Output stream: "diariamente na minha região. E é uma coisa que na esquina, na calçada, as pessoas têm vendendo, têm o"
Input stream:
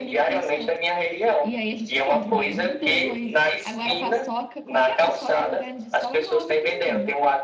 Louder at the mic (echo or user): echo